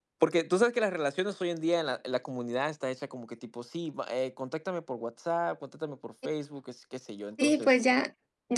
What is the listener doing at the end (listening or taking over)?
taking over